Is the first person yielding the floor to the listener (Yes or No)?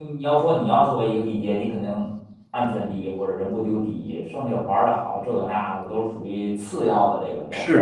Yes